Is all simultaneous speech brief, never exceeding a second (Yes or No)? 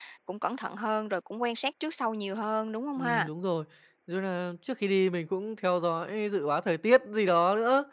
Yes